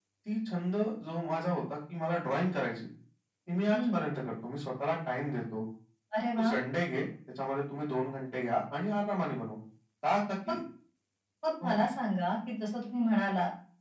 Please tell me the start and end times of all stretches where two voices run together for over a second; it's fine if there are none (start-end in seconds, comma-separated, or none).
none